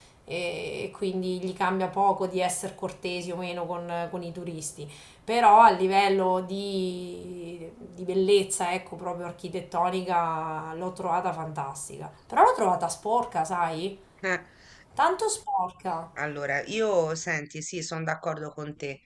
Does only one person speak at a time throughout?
Yes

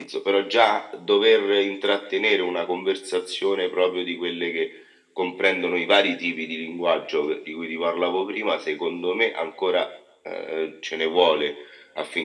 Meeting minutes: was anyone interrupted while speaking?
No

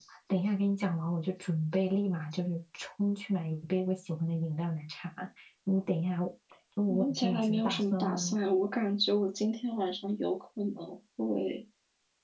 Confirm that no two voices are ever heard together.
No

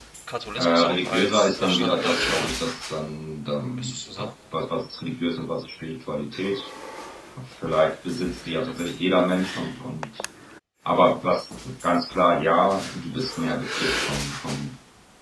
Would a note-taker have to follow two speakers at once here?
Yes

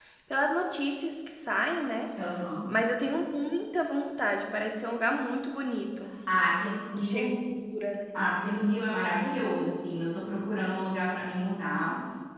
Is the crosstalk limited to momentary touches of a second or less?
Yes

